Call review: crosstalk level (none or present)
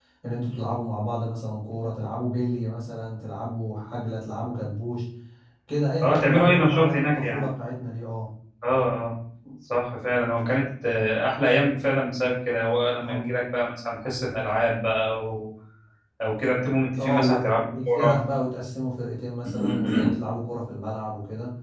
present